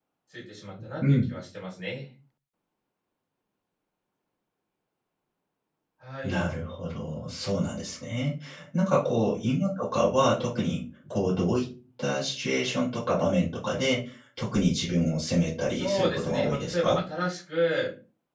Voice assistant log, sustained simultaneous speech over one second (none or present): present